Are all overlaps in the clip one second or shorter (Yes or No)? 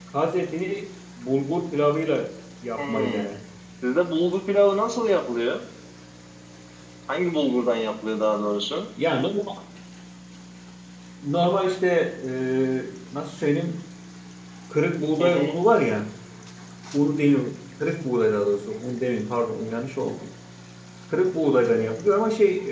Yes